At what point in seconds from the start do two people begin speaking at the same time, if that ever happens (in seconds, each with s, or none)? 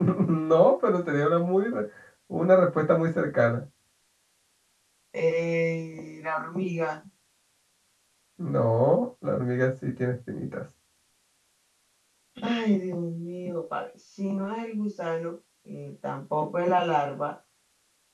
none